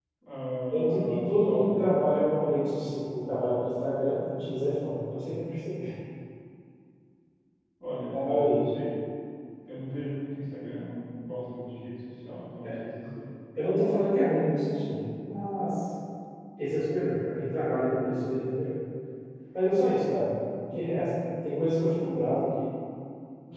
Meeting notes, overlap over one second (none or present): present